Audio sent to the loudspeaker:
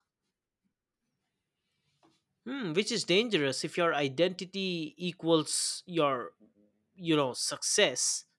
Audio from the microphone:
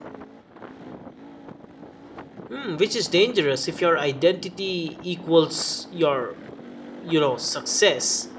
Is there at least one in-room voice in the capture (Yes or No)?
No